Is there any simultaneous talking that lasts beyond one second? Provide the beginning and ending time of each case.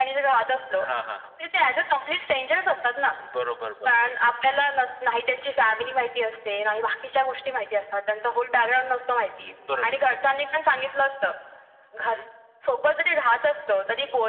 none

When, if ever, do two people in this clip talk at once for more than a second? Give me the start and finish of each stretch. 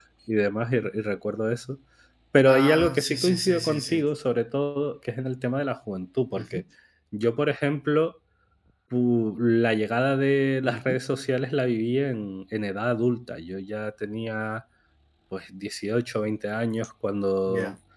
2.5-4.0

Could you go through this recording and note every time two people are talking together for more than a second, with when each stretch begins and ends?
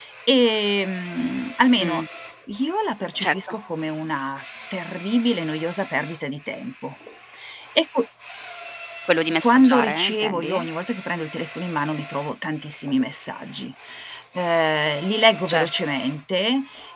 9.4-10.7

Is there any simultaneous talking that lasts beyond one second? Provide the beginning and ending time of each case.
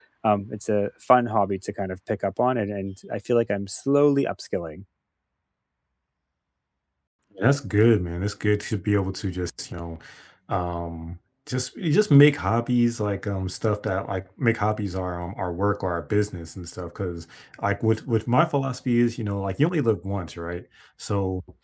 none

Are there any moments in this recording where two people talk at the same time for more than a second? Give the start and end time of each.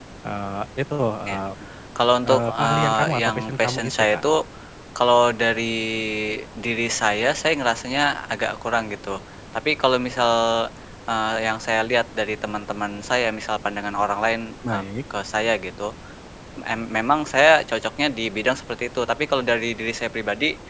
2.3-4.2

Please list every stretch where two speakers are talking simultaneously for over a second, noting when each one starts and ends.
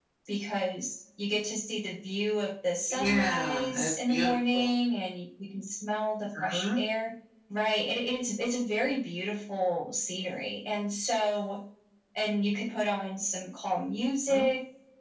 2.9-4.7

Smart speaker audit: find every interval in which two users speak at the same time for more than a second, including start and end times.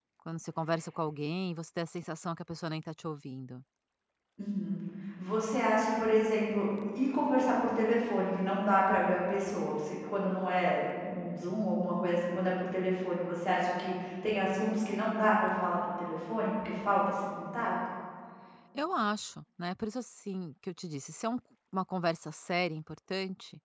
none

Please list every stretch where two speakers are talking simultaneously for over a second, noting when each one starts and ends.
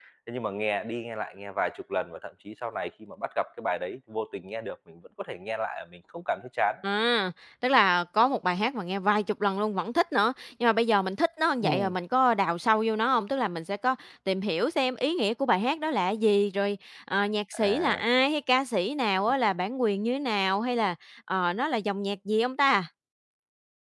none

